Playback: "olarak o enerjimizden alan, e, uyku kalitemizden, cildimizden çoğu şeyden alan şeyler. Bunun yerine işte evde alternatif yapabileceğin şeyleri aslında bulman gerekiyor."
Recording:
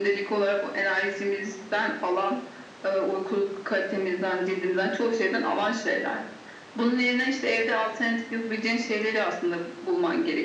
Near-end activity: none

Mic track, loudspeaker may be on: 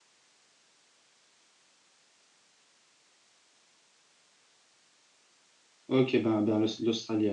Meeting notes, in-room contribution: present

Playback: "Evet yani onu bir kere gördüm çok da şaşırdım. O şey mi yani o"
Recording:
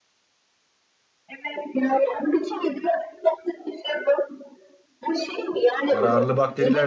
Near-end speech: present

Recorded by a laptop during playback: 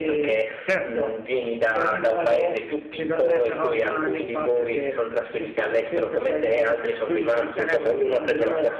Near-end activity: present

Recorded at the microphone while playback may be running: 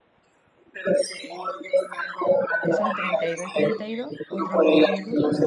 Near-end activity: present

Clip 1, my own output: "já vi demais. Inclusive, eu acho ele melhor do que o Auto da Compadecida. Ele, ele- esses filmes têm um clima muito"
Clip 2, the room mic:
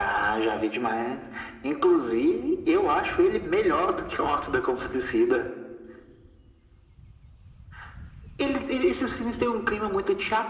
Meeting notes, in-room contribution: none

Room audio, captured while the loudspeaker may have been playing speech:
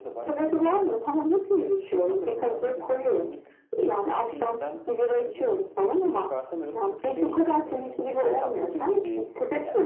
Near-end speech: present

